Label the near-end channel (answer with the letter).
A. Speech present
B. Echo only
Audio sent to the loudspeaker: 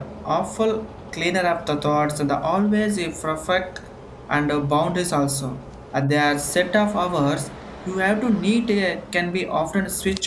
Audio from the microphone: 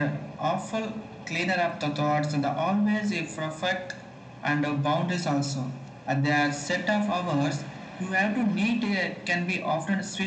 B